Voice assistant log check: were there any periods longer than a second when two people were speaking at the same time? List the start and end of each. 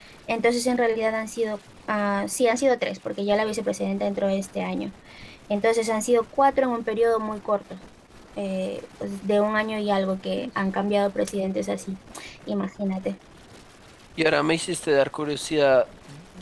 none

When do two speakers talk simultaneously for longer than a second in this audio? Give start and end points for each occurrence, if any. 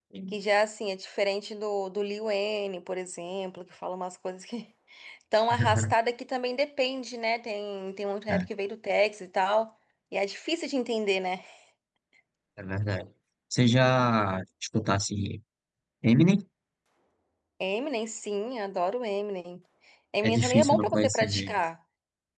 20.2-21.6

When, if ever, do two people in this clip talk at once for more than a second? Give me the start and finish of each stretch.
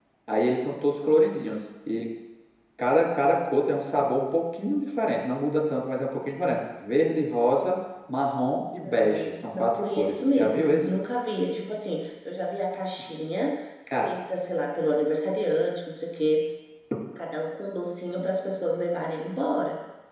8.7-11.0

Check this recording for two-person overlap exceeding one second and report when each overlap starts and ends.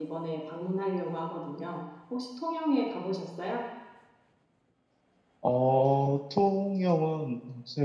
none

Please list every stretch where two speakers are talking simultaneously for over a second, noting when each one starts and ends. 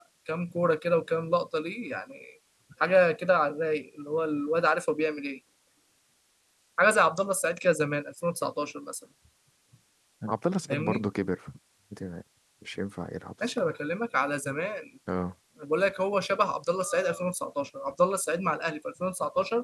none

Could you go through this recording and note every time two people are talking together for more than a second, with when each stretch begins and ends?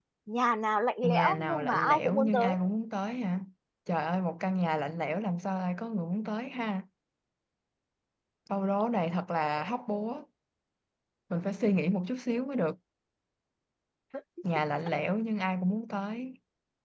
1.0-2.5

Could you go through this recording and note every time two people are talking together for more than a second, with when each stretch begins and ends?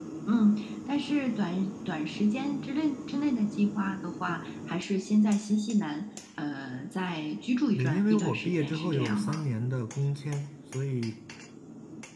7.8-9.4

